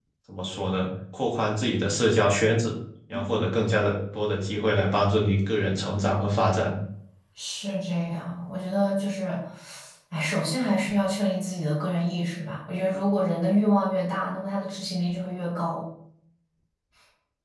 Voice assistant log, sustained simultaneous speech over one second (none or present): none